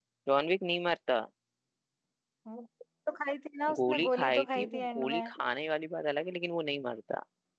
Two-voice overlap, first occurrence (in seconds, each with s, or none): 3.7 s